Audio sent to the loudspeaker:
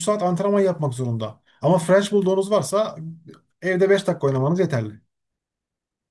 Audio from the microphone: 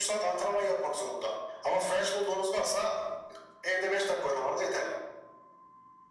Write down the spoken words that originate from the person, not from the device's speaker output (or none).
none